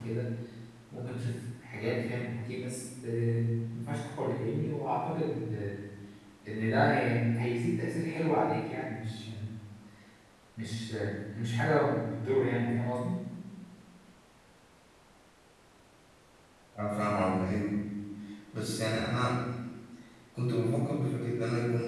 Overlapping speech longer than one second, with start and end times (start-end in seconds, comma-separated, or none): none